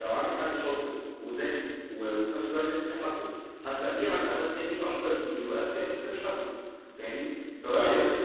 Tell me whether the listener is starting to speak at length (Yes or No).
No